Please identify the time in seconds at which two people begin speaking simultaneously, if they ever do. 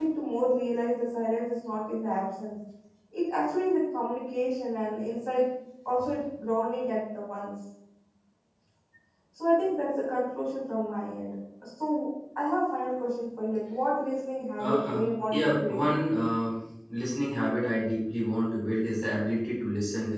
14.6 s

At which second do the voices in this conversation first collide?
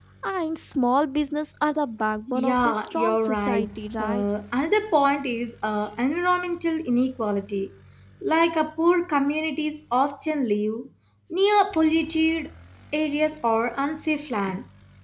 2.3 s

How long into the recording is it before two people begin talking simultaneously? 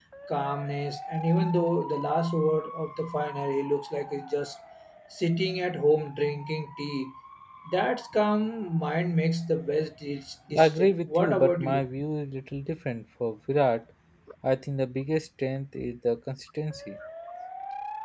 10.5 s

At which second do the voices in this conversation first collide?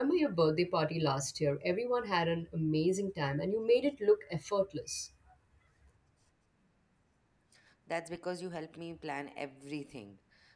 none

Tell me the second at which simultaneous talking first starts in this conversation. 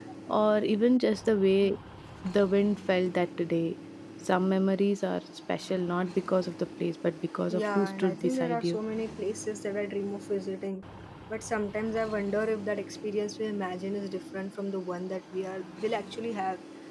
7.5 s

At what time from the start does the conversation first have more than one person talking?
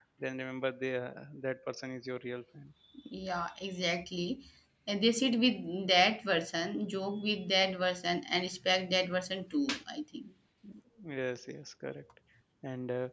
none

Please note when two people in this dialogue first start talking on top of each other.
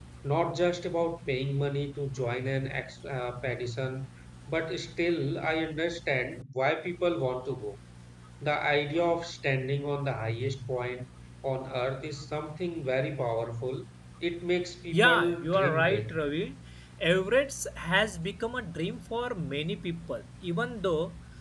14.9 s

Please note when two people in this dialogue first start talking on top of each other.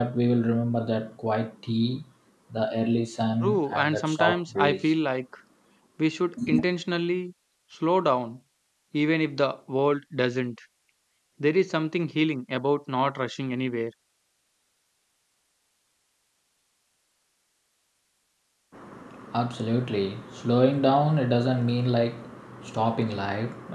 3.4 s

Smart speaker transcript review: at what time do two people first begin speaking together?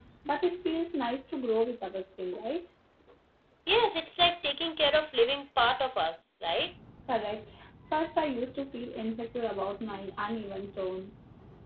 none

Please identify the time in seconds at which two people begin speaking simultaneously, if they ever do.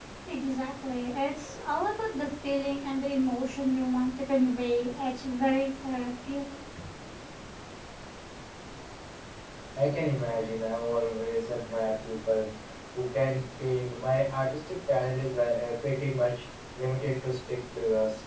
none

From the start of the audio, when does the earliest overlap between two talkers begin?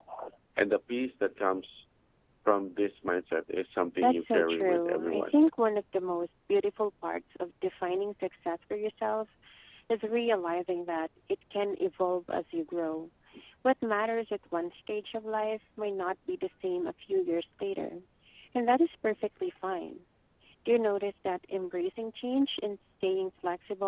4.0 s

